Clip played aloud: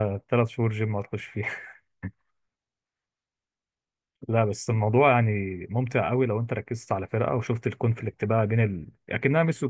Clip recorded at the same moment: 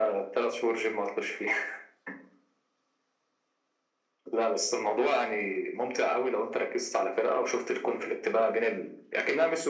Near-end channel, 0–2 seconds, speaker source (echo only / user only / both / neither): echo only